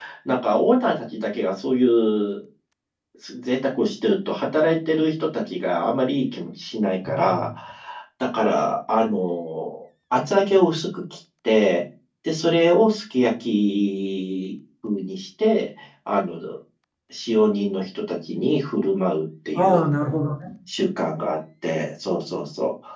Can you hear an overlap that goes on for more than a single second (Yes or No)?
No